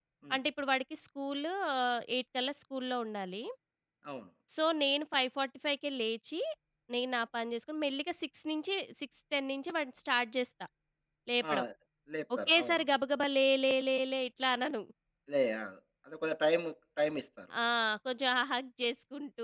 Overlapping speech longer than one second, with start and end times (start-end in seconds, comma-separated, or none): none